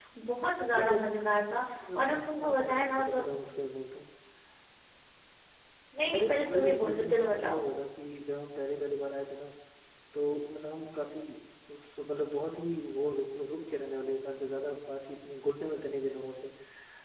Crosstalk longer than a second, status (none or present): present